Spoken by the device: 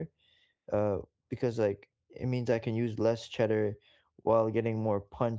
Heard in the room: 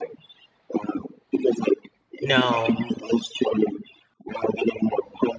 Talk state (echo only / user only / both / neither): both